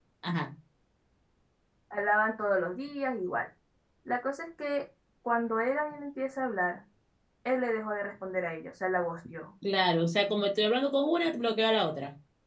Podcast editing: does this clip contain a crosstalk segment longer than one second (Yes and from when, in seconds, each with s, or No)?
No